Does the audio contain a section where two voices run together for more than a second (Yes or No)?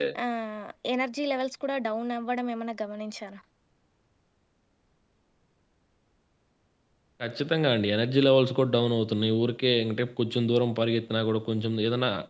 No